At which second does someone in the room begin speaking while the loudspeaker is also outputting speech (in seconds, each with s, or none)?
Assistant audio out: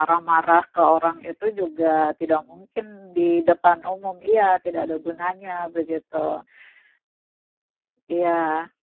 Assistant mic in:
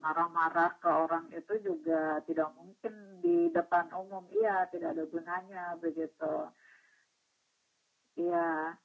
none